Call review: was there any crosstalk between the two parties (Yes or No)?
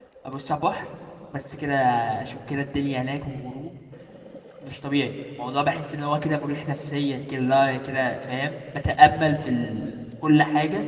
No